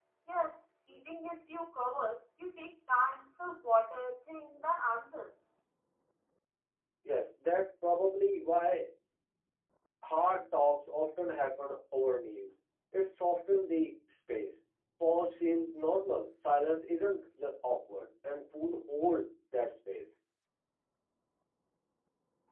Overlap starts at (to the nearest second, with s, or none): none